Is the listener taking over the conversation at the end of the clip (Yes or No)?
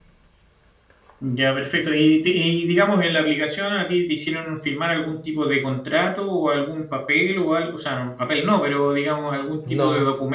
No